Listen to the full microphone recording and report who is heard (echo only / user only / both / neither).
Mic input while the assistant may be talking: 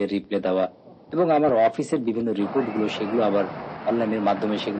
echo only